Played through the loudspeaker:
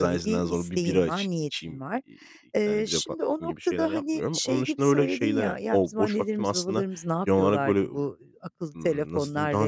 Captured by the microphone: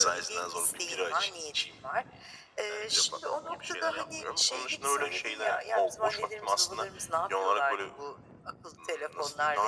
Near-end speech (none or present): none